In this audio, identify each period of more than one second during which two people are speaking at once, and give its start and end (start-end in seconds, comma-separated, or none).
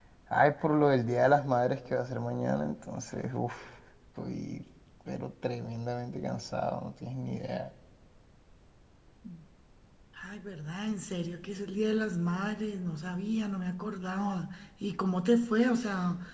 none